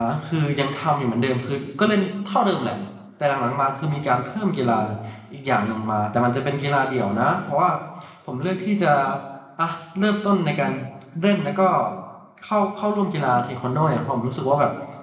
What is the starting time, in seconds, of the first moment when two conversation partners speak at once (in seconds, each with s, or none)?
none